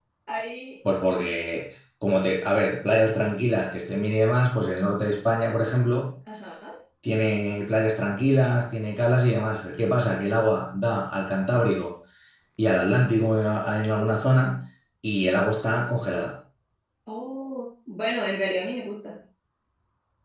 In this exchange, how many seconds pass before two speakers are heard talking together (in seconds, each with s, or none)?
none